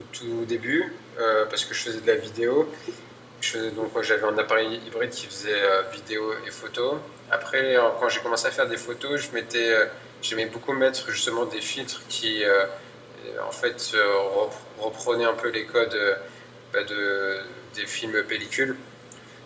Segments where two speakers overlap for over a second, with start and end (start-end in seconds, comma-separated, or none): none